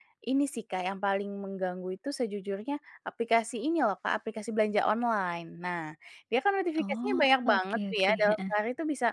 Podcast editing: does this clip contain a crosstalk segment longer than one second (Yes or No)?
Yes